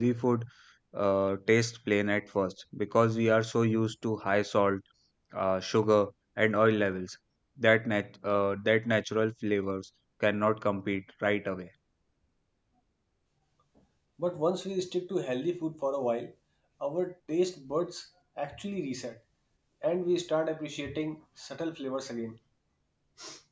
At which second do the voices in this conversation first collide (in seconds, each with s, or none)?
none